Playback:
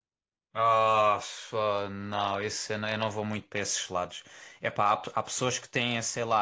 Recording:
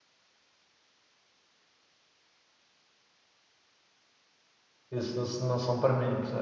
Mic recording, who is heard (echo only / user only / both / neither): user only